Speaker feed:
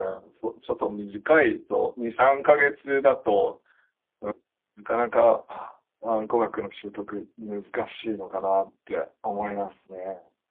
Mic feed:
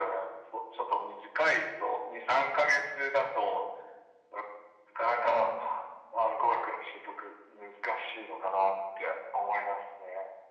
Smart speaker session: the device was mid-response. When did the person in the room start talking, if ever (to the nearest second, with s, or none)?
none